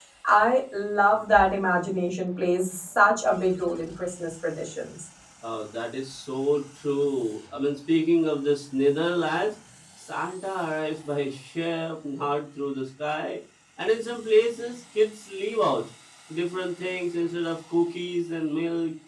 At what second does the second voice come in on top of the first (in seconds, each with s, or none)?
none